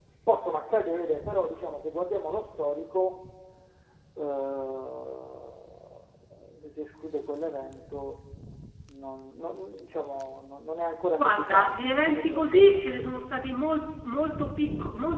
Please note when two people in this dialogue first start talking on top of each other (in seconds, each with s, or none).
11.2 s